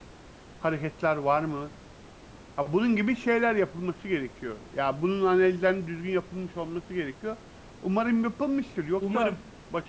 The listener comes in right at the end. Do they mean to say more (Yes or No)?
No